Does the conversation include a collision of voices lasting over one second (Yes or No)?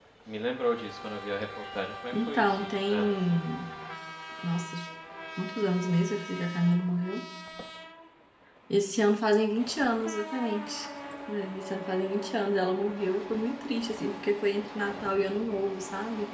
Yes